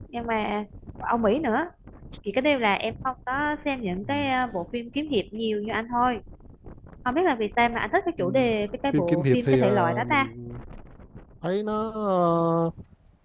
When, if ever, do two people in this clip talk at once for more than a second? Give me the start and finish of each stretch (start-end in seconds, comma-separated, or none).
8.9-10.3